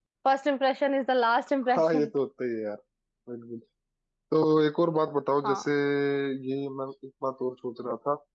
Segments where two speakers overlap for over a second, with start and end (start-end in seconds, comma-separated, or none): none